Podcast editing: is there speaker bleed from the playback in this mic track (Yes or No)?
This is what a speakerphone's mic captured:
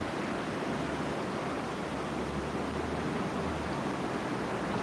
No